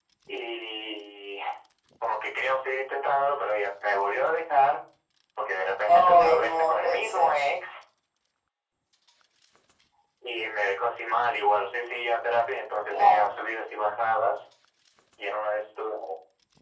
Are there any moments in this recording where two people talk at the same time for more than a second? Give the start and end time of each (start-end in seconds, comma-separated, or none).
5.9-7.3